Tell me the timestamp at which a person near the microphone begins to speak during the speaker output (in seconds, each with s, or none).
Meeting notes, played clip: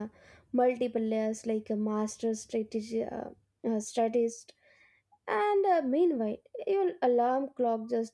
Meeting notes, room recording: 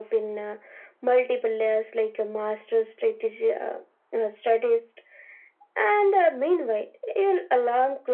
none